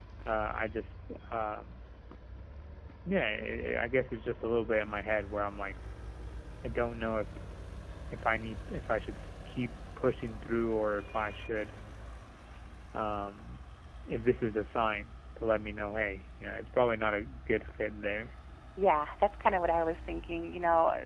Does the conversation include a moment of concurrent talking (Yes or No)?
No